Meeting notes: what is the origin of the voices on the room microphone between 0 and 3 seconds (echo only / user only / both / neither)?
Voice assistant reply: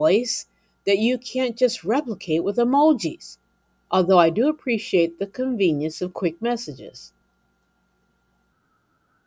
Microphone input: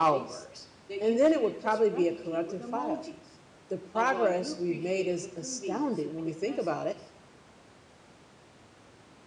both